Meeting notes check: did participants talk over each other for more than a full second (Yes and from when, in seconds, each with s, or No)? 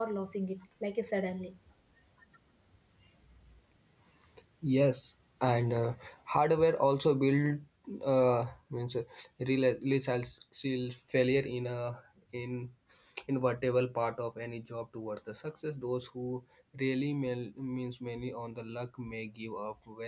No